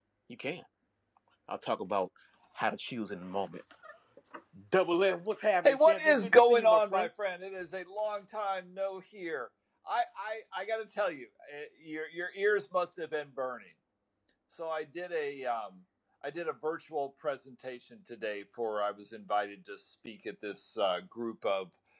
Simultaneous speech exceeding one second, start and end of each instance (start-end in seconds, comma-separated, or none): 5.6-7.1